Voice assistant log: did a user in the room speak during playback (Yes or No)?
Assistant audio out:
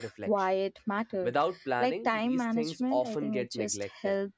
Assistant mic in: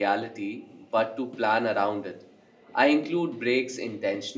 Yes